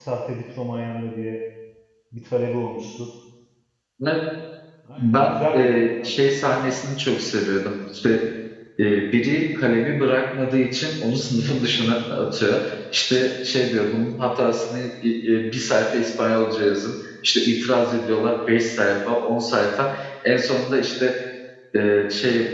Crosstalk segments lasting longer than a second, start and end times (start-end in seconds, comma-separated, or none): 5.0-6.8